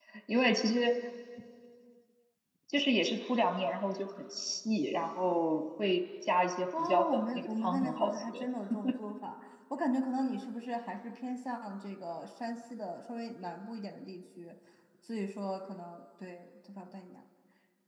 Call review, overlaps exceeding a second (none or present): present